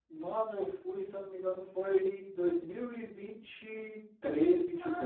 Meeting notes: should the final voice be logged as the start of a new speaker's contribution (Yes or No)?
Yes